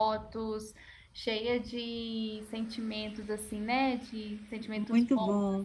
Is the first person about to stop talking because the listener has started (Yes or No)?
Yes